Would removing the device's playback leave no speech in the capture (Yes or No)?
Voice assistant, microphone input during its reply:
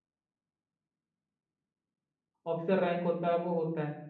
No